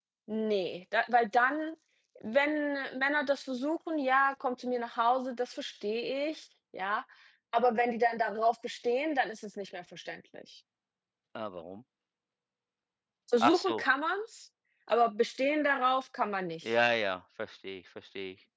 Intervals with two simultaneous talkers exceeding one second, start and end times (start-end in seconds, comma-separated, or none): none